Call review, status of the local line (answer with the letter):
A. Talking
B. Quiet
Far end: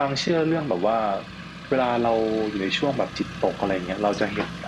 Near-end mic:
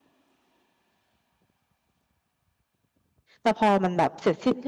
A